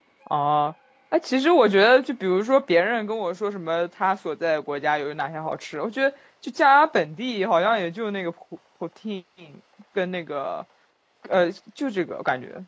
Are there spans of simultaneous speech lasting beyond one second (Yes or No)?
No